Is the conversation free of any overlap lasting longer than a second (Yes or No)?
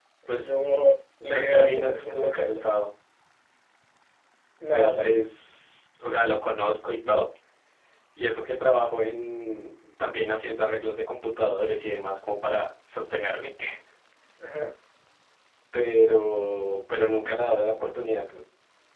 No